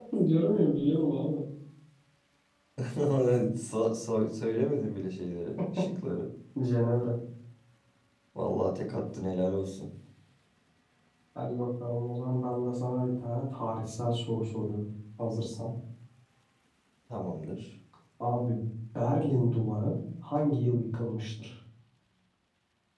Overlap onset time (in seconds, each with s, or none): none